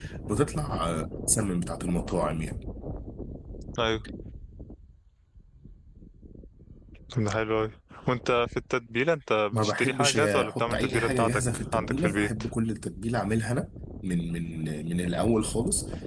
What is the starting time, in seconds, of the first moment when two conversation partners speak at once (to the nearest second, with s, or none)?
10 s